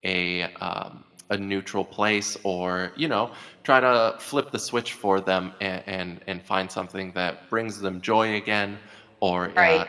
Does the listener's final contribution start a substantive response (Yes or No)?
No